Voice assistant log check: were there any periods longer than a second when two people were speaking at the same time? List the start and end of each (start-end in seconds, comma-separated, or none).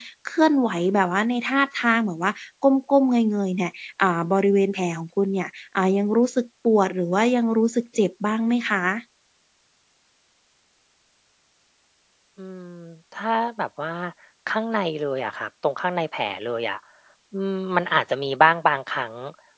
none